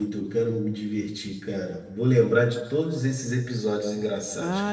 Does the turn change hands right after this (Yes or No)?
Yes